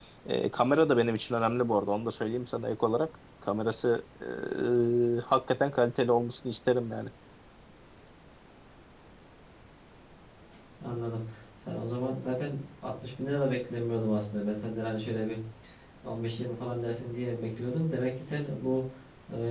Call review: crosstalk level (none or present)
none